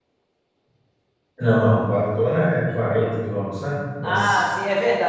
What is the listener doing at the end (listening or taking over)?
taking over